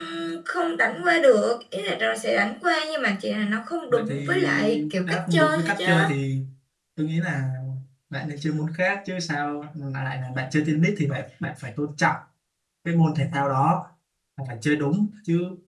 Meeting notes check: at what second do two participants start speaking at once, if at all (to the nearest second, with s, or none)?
4 s